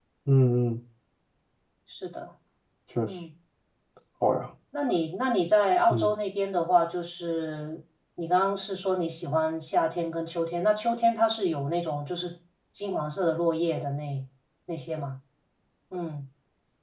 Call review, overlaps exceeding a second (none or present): none